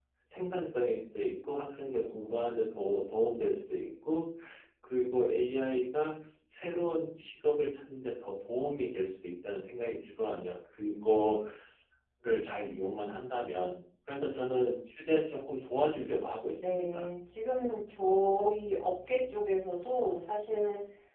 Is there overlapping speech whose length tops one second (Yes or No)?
No